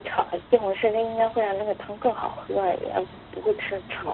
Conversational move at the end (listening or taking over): taking over